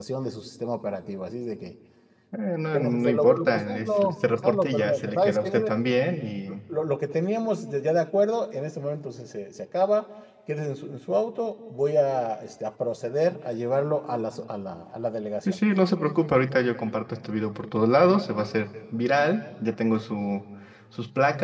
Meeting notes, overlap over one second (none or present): present